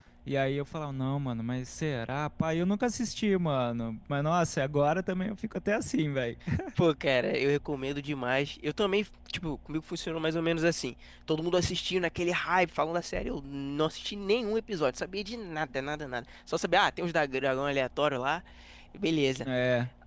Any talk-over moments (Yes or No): No